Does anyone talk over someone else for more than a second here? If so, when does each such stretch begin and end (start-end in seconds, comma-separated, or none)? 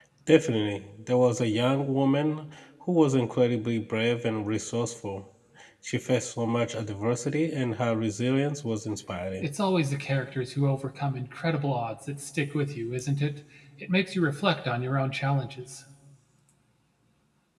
none